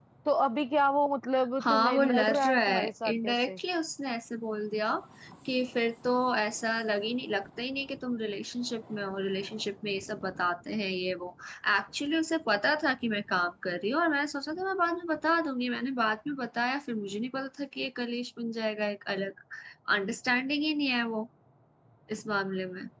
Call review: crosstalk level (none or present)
present